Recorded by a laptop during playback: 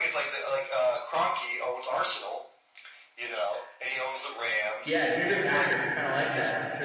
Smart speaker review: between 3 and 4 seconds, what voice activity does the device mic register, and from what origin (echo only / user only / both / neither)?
echo only